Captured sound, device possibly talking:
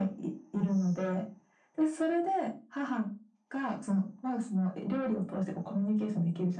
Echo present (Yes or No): Yes